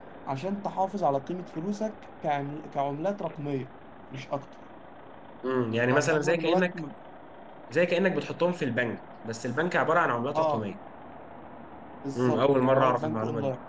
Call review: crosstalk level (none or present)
present